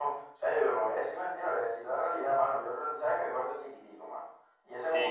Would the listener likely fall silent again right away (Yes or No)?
Yes